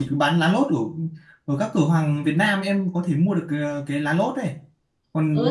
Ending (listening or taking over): taking over